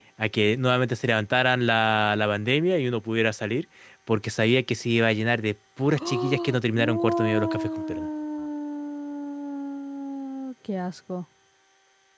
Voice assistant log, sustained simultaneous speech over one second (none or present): present